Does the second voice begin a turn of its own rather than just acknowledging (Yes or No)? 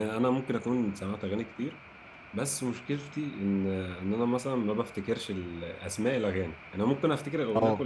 No